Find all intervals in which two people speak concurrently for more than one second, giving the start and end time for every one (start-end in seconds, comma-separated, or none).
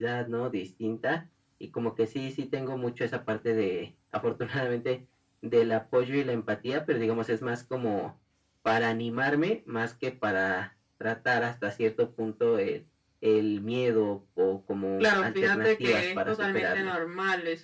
15.0-16.9